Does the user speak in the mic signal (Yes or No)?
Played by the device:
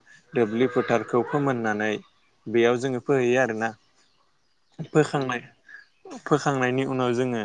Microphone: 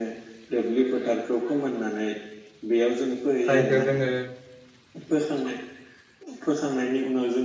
Yes